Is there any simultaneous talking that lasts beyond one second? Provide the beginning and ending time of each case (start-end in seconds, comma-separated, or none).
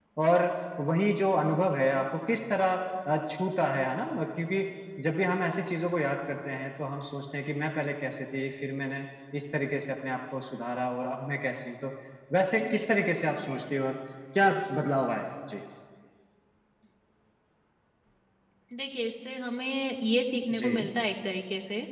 none